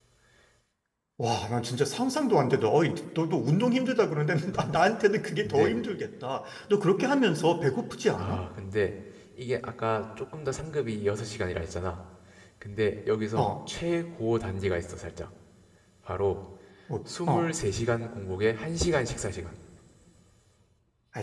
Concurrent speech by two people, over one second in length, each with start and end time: none

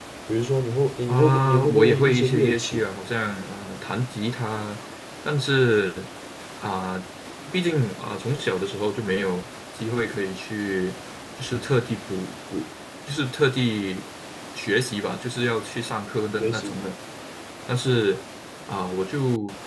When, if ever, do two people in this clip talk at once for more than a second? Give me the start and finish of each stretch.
1.1-2.9

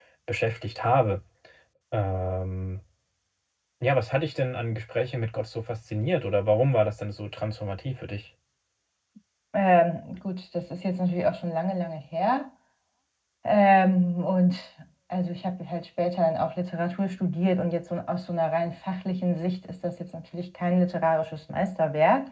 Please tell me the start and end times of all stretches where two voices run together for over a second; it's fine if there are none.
none

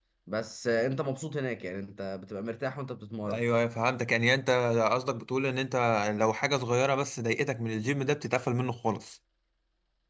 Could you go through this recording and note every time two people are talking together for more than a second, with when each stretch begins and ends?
none

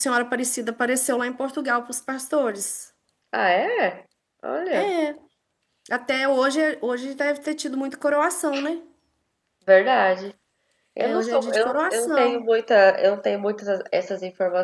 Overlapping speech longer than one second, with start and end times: 11.0-12.4

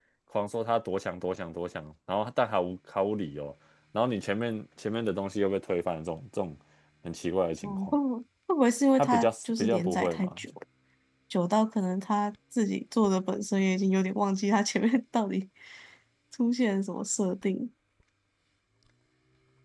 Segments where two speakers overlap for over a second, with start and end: 9.0-10.4

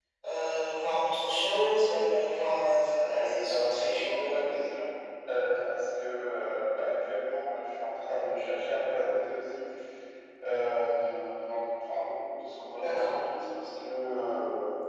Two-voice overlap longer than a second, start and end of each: 3.1-4.6

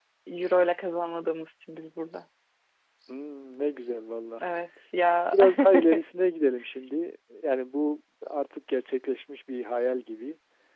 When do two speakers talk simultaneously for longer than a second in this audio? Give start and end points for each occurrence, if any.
none

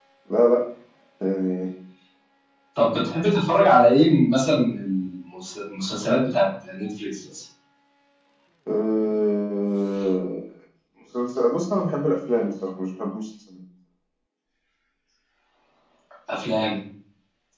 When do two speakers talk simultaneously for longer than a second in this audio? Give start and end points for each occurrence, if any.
none

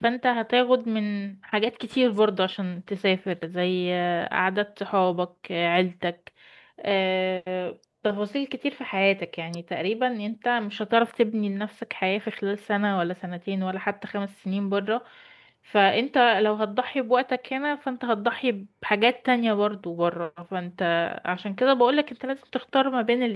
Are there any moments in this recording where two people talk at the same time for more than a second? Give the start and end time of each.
none

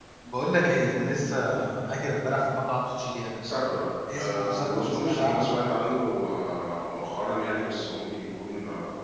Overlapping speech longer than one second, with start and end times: 4.1-5.5

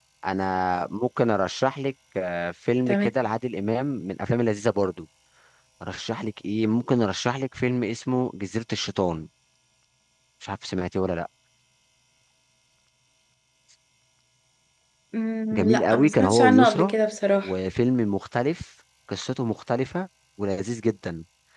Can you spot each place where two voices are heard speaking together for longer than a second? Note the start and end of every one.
15.5-16.9

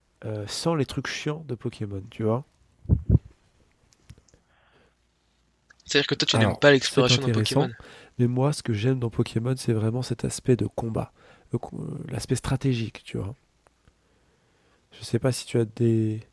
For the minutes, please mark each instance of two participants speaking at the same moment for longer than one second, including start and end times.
6.3-7.7

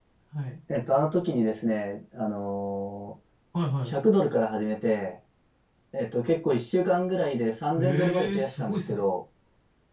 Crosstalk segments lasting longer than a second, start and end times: 7.8-9.0

